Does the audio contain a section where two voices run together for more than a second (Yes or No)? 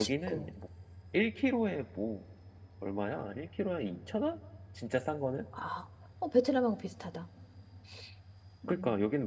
No